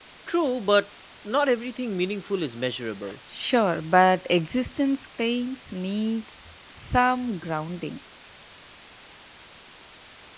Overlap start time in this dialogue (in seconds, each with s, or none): none